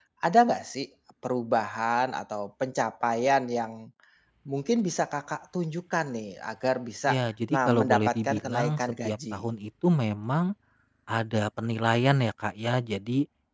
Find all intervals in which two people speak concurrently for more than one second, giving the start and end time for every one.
7.5-9.4

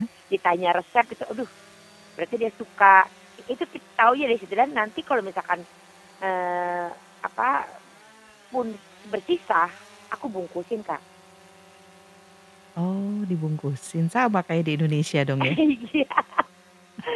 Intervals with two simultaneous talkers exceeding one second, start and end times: none

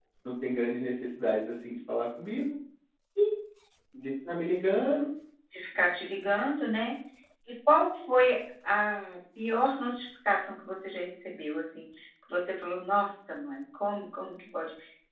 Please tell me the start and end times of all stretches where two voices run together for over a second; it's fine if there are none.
none

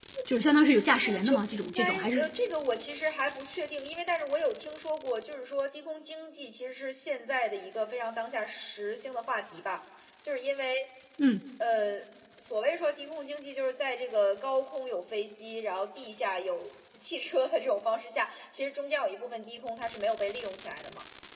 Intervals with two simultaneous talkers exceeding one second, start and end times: 1.0-2.3

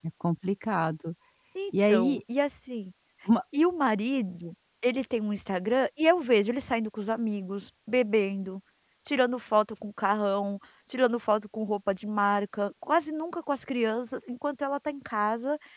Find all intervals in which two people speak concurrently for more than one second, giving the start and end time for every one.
none

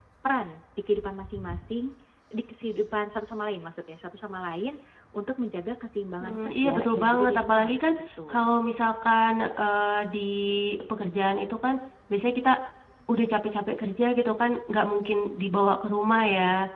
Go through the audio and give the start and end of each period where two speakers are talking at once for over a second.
6.2-7.8

